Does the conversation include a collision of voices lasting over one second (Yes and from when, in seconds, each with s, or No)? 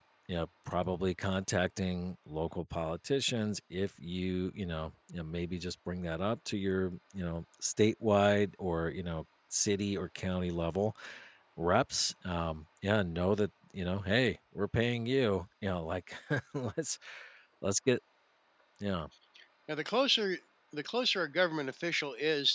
No